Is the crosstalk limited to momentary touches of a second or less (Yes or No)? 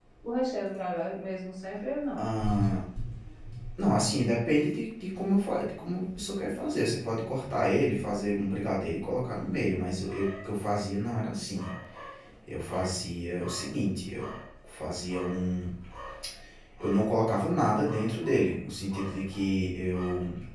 Yes